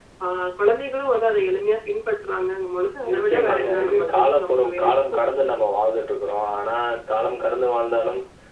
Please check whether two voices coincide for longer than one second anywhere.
Yes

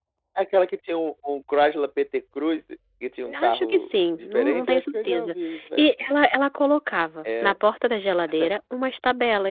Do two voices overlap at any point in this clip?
Yes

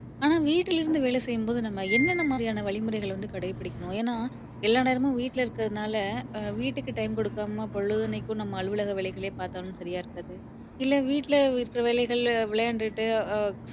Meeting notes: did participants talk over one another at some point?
No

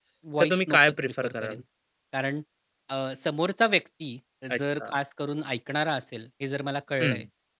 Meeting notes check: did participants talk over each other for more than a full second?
Yes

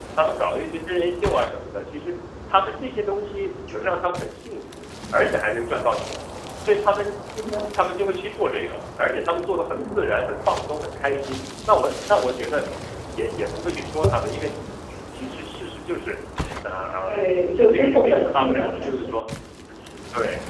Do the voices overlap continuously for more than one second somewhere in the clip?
Yes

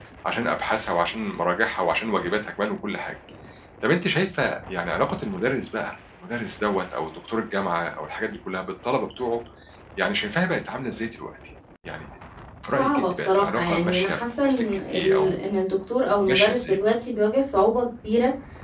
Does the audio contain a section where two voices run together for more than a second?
Yes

